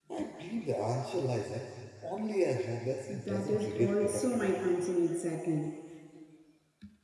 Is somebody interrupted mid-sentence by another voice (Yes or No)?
Yes